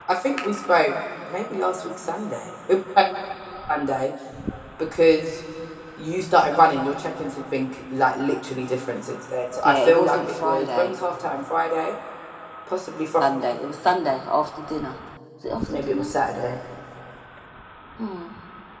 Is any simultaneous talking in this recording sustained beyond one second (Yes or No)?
Yes